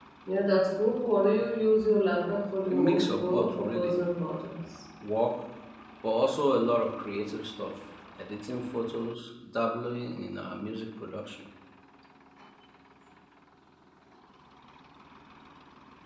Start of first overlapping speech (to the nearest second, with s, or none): 3 s